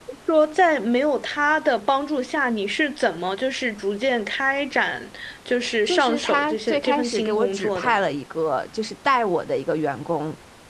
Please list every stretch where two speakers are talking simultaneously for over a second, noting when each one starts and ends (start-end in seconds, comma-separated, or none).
5.9-8.0